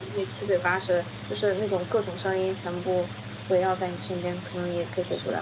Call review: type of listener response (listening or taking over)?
taking over